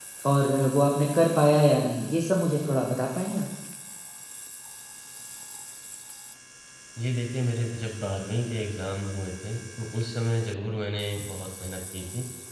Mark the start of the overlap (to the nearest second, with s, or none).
none